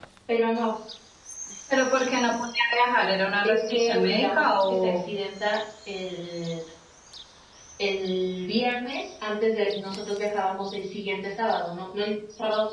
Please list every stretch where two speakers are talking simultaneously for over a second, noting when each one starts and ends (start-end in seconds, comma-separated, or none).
3.4-5.0